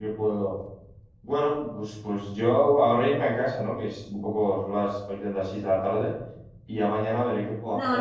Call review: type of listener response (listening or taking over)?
taking over